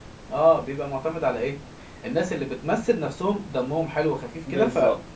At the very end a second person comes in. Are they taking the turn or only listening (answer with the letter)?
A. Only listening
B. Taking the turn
B